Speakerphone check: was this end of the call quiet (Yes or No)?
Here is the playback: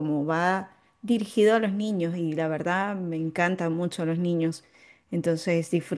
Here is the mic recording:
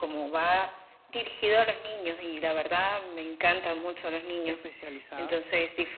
No